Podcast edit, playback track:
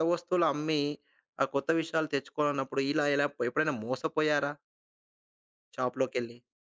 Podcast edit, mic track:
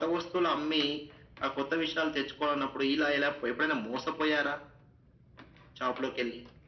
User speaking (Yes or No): No